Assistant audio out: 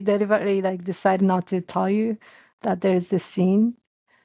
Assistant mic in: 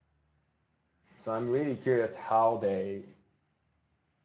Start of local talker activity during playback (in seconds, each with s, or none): 1.2 s